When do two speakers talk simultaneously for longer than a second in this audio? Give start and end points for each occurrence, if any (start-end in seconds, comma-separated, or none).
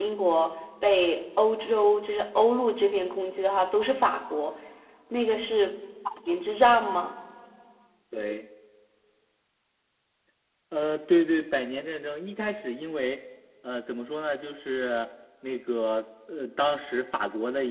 none